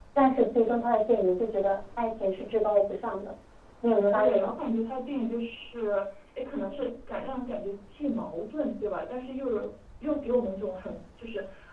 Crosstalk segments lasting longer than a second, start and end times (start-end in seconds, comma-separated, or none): none